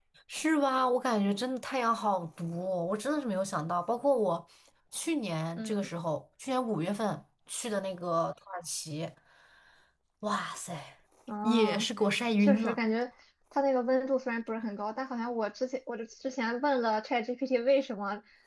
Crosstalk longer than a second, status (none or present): none